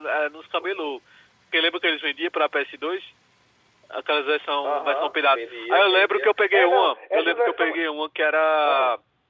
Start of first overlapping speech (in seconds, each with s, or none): 4.6 s